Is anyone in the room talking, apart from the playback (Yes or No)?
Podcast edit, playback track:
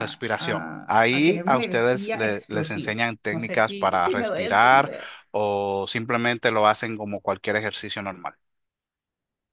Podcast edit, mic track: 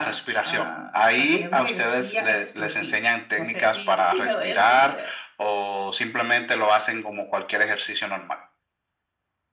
No